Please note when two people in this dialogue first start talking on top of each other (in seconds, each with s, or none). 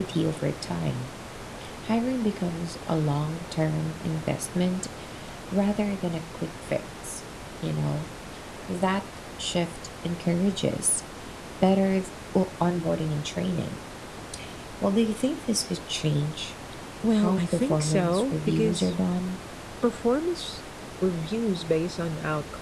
17.2 s